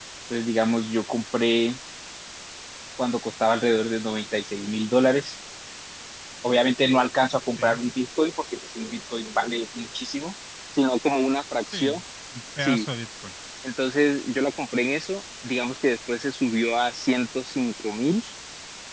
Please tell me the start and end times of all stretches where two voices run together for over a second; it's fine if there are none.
none

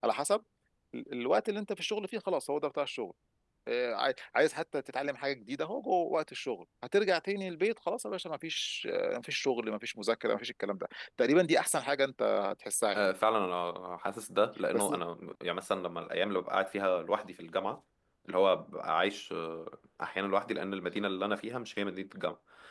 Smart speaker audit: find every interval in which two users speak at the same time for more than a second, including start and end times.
none

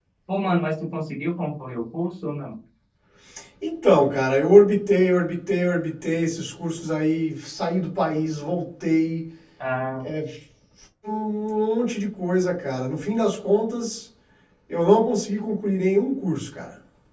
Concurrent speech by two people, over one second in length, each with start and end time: none

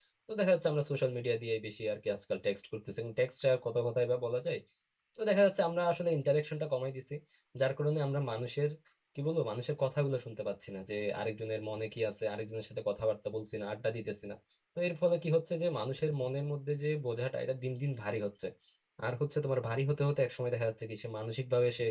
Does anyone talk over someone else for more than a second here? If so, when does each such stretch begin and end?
none

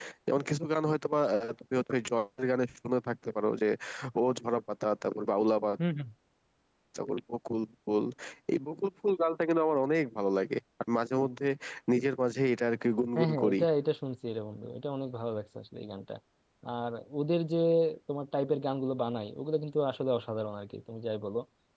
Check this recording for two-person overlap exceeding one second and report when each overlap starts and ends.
none

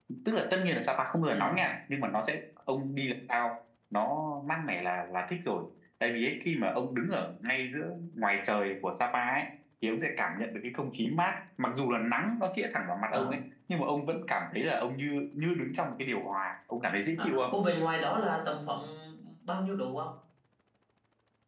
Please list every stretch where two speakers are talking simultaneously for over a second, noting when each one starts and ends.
none

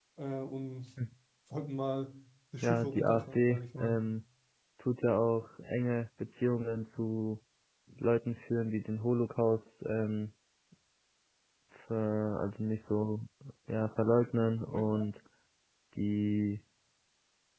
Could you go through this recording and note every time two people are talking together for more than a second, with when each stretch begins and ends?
2.6-4.0

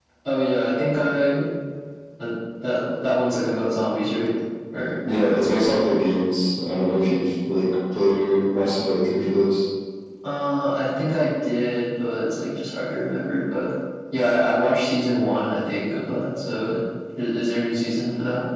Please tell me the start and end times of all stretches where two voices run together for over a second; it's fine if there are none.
none

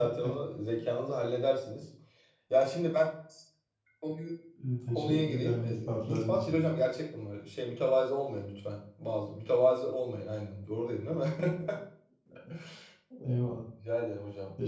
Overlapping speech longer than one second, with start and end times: 4.9-6.6

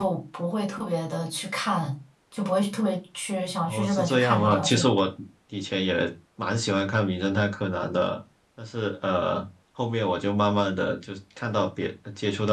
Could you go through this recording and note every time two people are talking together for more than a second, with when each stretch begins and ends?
3.7-4.9

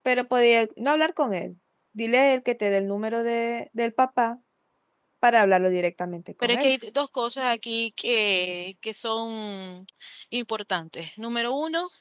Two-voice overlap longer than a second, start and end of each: none

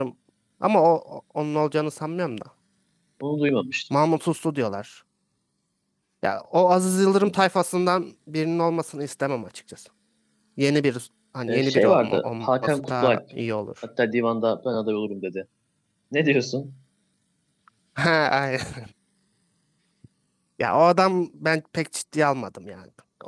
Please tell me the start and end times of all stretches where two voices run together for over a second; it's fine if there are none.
11.5-13.2

